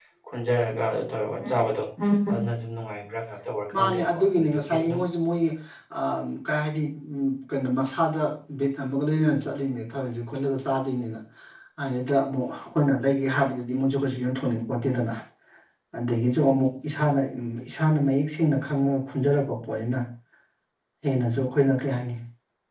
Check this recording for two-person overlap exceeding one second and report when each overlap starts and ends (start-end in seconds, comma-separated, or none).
3.8-5.0